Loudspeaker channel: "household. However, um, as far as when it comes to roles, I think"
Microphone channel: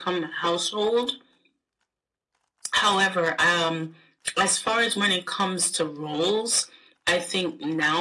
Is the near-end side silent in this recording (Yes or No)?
Yes